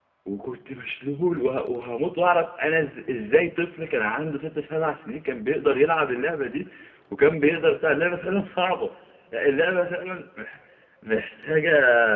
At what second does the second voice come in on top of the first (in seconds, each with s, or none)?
none